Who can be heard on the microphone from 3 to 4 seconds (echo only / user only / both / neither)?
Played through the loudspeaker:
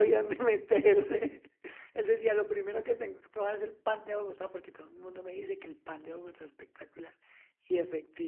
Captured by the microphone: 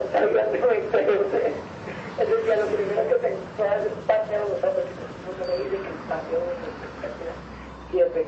echo only